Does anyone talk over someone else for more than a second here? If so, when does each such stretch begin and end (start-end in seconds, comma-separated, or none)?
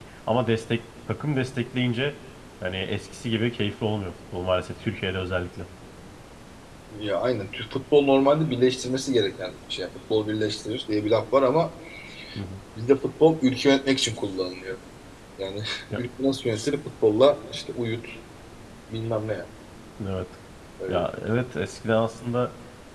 none